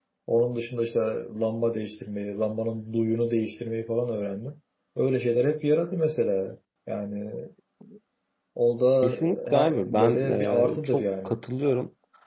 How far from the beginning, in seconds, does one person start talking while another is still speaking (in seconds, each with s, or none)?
9.0 s